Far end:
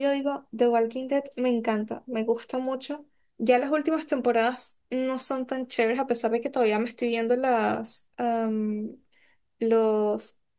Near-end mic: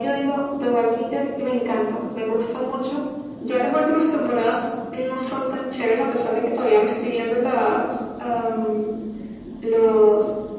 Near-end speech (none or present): none